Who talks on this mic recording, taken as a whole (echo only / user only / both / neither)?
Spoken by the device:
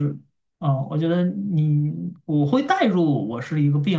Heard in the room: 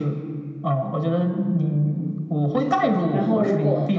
both